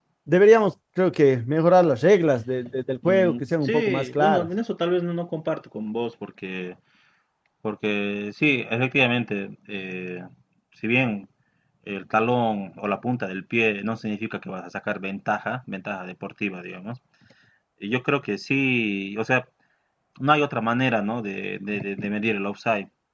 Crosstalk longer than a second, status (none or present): present